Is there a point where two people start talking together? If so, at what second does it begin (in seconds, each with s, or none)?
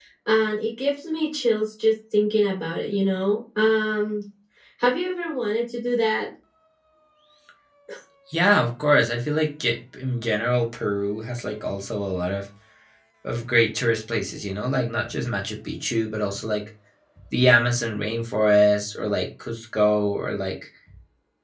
none